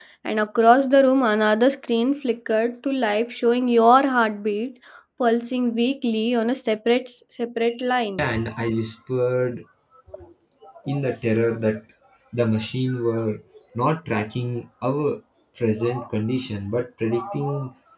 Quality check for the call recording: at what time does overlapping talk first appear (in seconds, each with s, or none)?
none